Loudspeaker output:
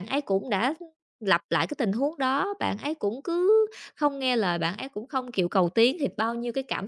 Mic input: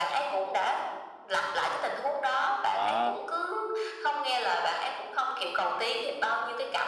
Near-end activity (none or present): present